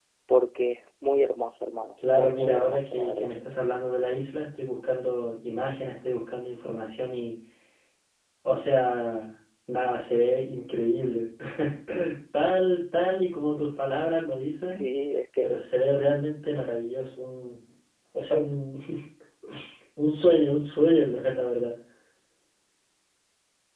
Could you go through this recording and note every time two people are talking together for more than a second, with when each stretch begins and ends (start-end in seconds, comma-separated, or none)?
2.0-3.3